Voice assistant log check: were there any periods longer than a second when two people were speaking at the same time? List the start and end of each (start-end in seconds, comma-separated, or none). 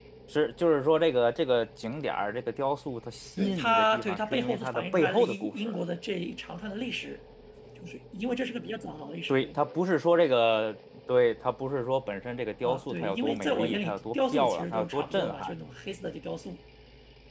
3.4-5.8, 12.6-15.5